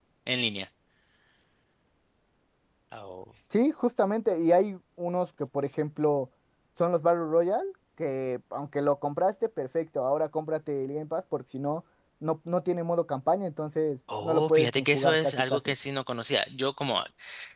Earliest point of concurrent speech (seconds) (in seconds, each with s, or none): 14.1 s